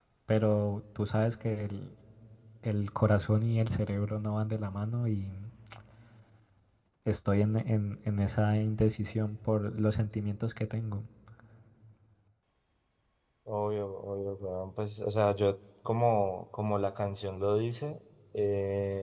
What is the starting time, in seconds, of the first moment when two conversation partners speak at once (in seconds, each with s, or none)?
none